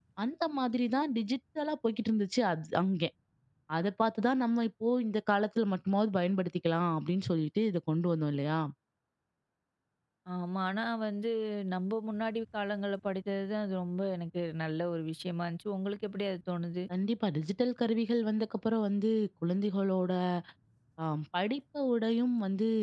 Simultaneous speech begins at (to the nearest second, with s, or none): none